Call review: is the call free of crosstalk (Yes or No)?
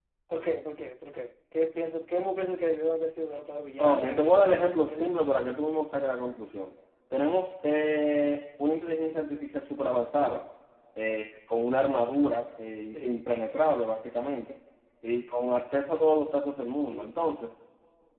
No